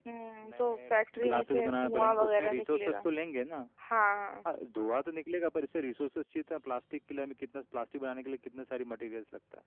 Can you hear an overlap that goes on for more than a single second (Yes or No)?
Yes